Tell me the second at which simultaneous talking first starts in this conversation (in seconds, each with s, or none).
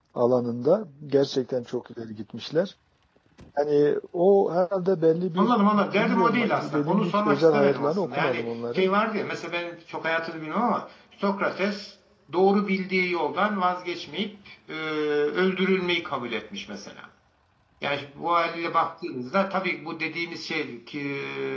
5.4 s